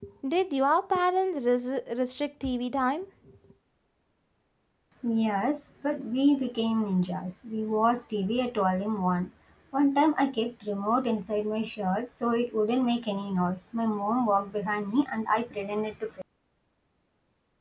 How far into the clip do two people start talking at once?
none

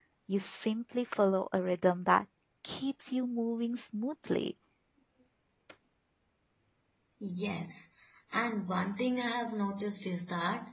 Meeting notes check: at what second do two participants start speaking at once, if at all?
none

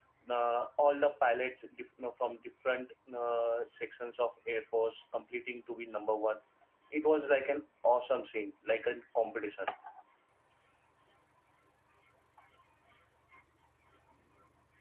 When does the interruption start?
none

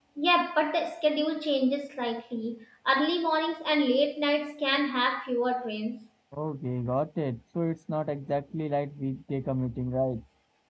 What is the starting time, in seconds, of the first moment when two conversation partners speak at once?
none

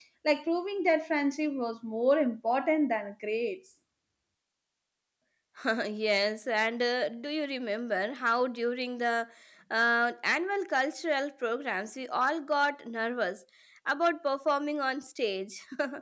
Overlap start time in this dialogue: none

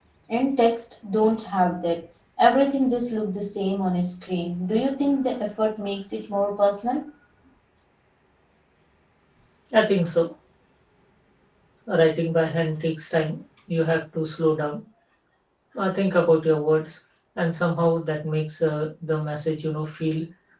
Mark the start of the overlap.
none

